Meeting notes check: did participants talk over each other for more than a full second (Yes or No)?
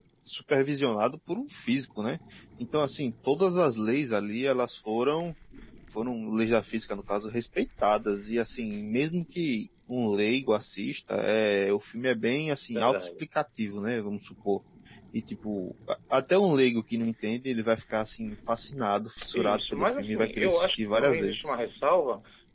Yes